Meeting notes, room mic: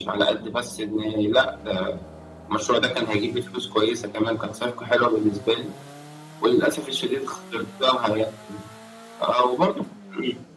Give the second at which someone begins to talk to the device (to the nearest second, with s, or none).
none